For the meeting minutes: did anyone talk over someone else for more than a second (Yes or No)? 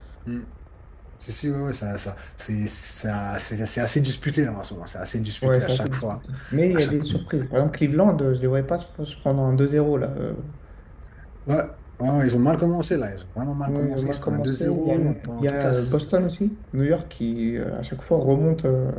Yes